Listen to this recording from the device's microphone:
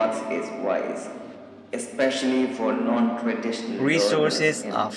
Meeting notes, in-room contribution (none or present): present